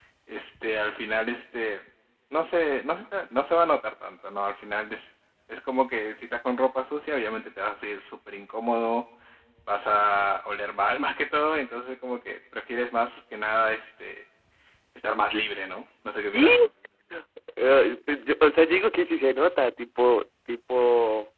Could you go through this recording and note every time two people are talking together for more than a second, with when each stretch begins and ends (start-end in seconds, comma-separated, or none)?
none